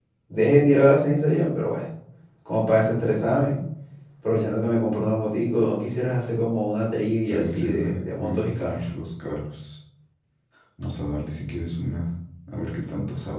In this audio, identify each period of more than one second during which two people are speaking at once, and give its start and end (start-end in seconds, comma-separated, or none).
7.3-8.7